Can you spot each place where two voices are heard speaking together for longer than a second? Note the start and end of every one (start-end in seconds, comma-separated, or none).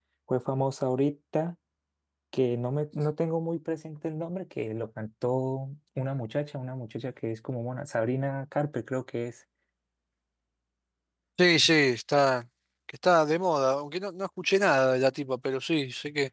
none